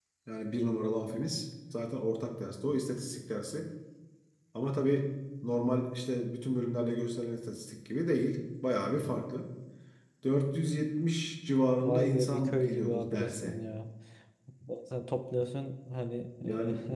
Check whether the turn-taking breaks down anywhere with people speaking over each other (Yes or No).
Yes